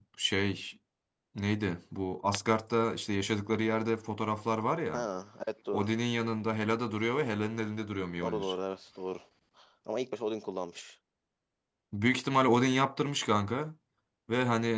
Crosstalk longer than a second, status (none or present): none